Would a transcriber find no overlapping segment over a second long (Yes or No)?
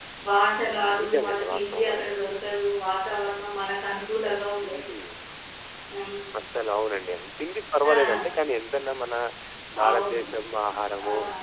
No